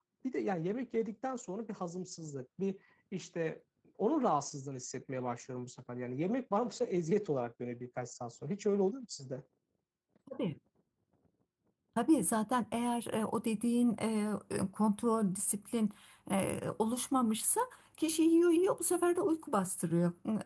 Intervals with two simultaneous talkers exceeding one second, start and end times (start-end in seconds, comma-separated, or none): none